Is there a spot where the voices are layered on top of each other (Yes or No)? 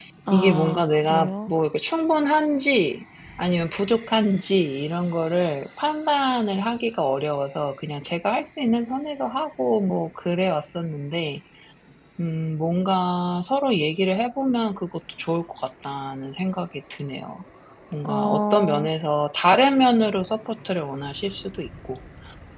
Yes